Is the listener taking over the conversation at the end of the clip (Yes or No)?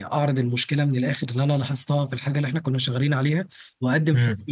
No